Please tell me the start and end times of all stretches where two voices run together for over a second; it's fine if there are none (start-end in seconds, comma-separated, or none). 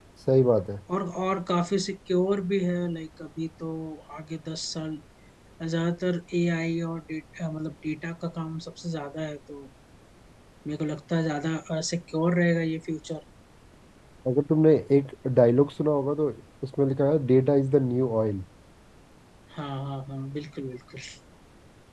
none